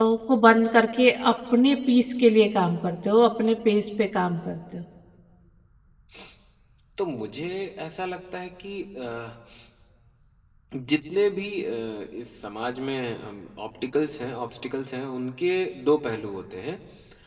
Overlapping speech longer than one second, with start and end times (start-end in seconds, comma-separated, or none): none